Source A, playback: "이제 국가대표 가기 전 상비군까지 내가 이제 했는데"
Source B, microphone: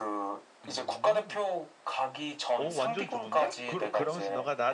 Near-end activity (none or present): present